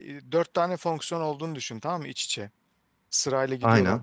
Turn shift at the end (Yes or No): No